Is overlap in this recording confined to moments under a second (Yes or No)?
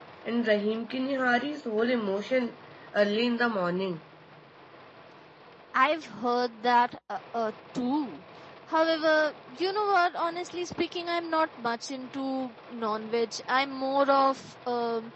Yes